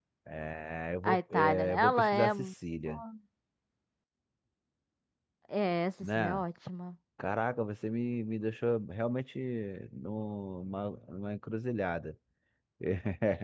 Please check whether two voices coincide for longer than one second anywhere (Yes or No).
Yes